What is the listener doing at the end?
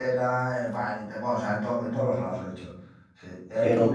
listening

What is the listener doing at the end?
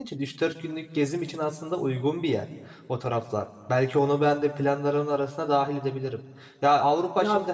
listening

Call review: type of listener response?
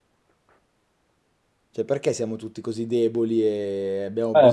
taking over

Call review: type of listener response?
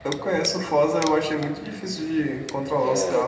taking over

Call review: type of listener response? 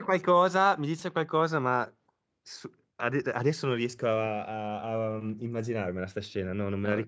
listening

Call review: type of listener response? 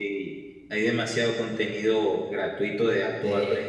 listening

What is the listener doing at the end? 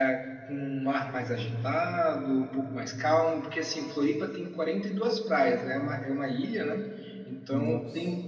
listening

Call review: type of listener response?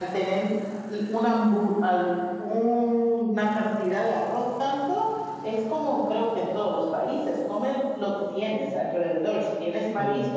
listening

